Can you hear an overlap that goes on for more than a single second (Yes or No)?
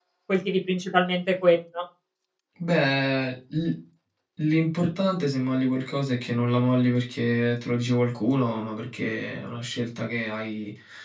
No